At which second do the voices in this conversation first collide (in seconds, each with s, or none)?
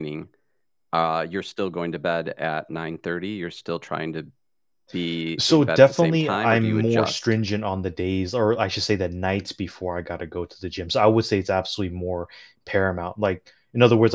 5.4 s